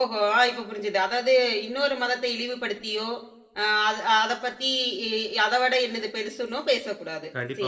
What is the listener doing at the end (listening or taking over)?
taking over